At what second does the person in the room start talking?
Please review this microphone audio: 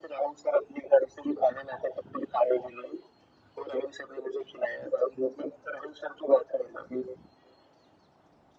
none

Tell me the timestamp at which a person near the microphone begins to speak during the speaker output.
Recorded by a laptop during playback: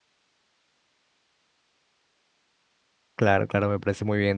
3 s

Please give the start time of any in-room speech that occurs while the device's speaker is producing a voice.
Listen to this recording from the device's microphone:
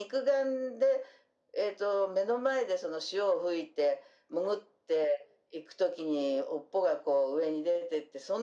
none

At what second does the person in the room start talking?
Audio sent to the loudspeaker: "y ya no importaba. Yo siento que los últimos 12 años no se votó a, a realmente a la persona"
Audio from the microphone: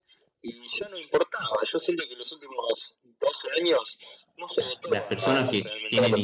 5 s

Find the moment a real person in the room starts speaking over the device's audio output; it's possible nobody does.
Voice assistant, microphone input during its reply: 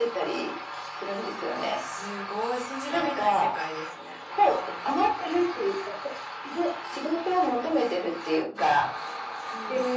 none

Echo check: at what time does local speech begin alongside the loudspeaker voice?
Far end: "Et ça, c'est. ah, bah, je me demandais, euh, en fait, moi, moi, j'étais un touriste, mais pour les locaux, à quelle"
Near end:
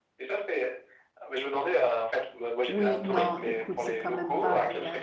3 s

